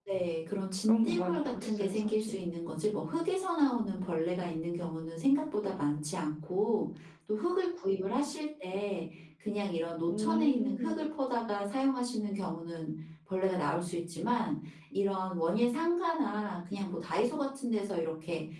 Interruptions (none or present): present